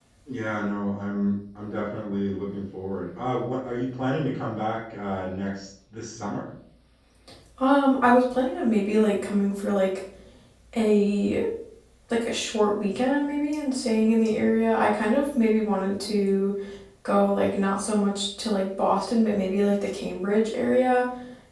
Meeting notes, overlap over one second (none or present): none